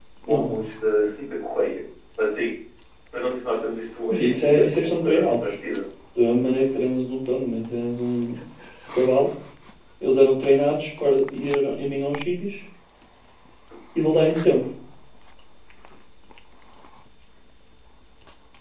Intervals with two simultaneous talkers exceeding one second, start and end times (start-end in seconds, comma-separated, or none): 4.1-5.5